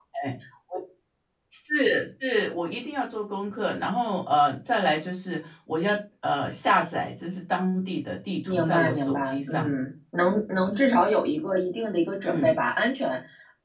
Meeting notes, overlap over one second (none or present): present